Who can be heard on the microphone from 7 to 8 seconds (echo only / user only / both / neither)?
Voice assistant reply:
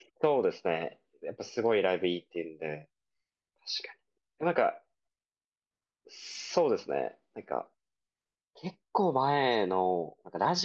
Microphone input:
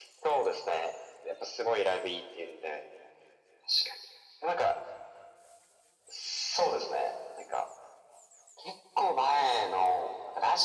echo only